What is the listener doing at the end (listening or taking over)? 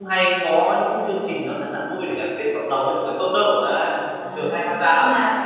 taking over